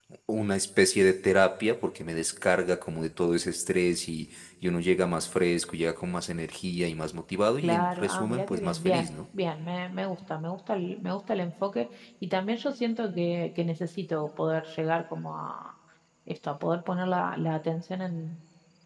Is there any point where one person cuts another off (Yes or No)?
Yes